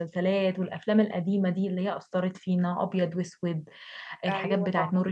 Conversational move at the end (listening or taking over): listening